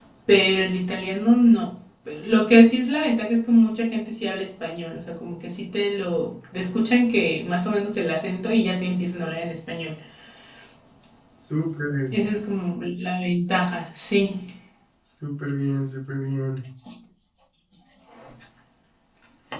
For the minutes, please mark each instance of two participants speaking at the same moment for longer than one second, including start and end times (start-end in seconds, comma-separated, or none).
none